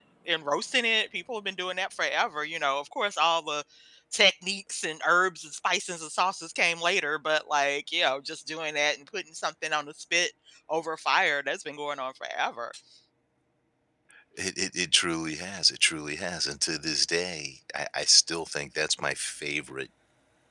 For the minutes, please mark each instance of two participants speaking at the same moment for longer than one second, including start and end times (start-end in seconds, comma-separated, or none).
none